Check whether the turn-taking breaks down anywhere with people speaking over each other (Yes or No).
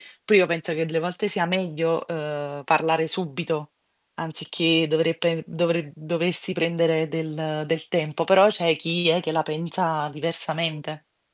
No